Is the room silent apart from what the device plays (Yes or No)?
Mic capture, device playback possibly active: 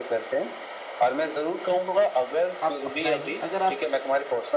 No